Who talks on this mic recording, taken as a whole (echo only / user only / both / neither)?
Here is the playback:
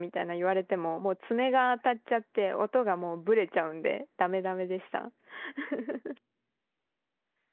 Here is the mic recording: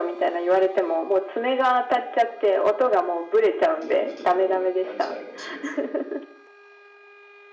both